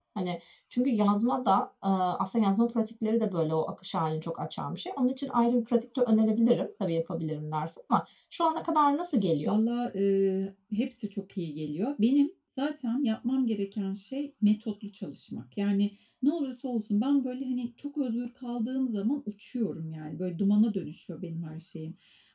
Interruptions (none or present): none